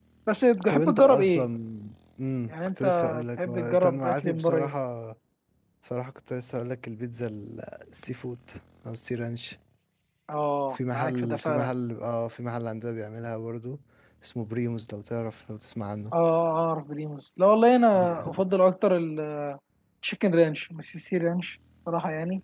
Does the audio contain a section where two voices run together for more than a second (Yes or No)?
Yes